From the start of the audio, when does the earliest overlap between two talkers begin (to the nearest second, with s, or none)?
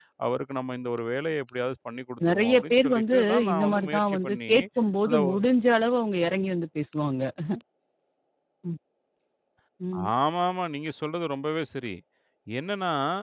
2 s